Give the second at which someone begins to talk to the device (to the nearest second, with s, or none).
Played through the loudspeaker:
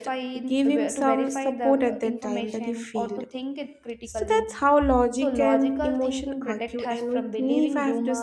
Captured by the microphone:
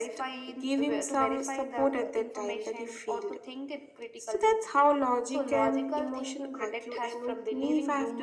none